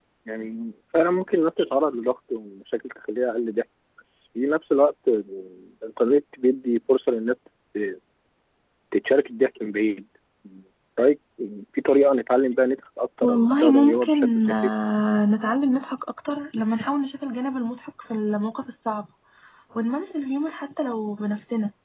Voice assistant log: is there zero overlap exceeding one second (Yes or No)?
No